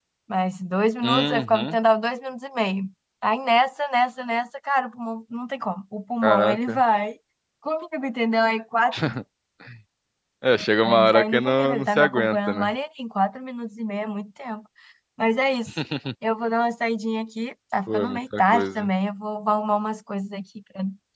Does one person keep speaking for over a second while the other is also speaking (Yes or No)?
Yes